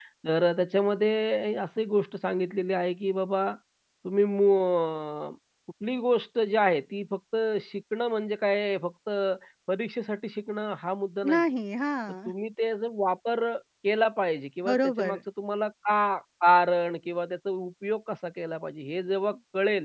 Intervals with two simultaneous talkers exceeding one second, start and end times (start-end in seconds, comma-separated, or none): none